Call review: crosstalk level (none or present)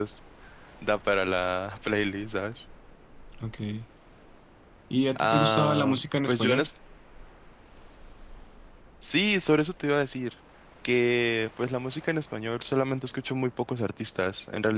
present